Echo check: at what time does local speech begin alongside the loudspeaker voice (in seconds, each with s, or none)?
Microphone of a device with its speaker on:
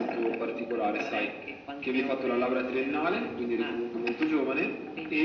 none